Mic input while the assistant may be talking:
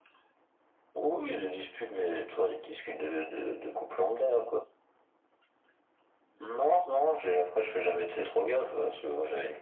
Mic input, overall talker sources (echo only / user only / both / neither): echo only